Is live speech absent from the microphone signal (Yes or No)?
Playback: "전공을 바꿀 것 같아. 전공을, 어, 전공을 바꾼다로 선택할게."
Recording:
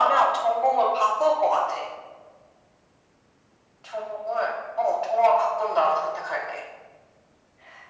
Yes